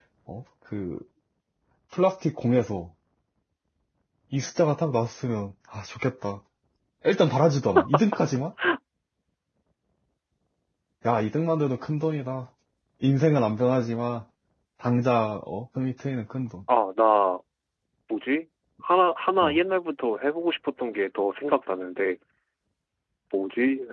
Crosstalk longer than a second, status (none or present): none